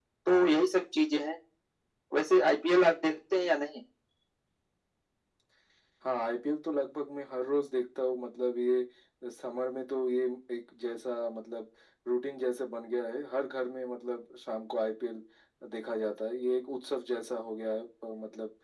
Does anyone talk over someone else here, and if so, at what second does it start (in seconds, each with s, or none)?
none